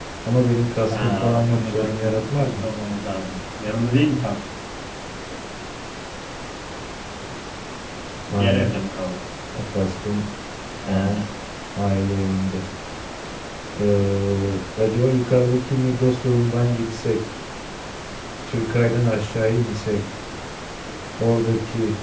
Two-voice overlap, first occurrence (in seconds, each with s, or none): 0.9 s